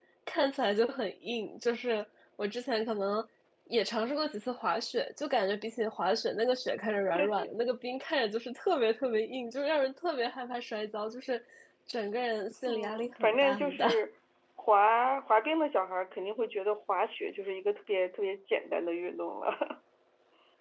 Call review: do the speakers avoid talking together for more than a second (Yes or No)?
No